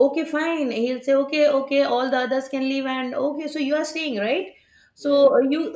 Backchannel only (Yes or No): Yes